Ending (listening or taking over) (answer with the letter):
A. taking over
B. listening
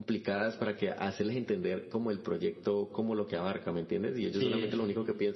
B